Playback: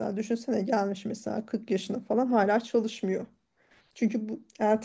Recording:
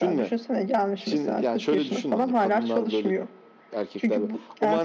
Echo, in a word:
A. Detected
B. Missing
A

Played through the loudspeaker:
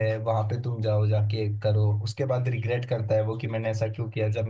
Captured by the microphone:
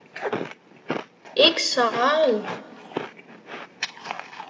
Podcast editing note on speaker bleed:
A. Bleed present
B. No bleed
B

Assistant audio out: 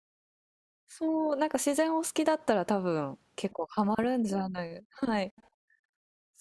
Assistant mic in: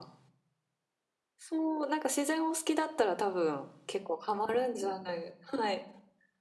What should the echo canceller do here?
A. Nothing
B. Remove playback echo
B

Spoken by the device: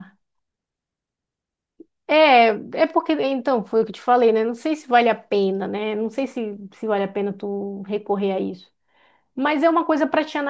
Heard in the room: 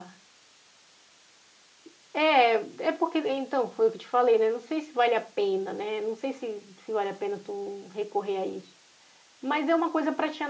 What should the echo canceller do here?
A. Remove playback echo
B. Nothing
A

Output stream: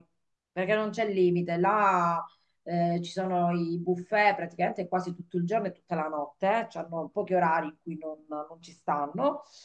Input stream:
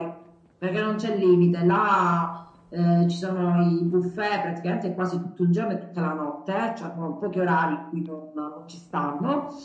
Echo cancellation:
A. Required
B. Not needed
A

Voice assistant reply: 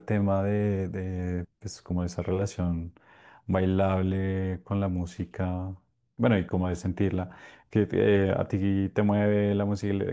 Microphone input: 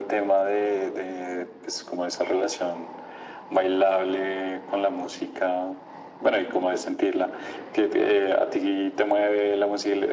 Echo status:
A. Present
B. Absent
A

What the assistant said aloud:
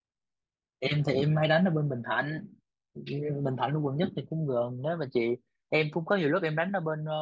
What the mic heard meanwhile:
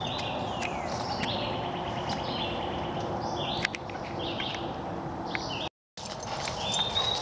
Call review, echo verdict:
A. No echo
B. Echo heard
A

